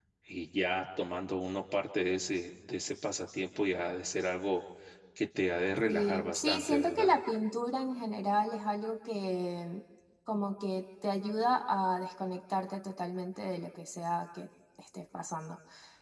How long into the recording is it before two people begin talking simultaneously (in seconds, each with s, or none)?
5.9 s